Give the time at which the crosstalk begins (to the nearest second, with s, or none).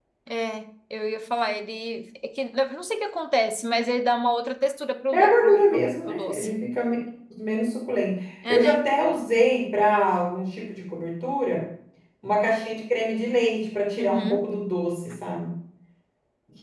5 s